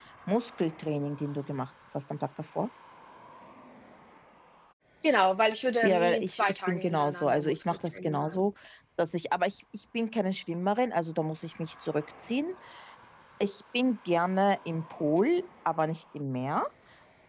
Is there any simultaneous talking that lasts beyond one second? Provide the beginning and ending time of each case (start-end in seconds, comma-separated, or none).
5.8-8.4